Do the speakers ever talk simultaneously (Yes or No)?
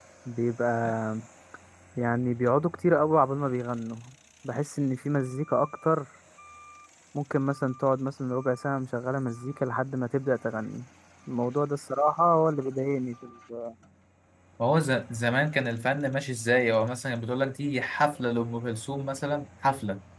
No